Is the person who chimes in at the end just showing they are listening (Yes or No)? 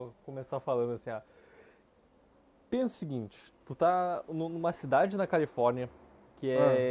Yes